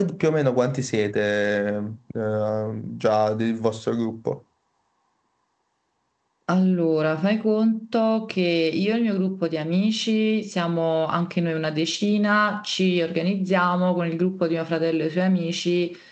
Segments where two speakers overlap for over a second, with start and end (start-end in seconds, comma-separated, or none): none